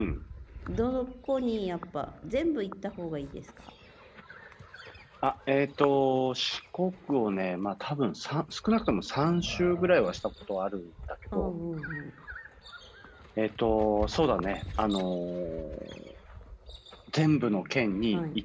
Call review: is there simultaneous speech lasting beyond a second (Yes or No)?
No